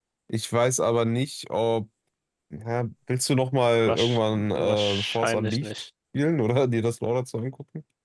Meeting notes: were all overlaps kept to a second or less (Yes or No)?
No